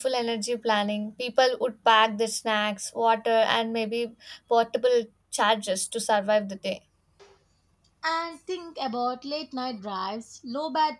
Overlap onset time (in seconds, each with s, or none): none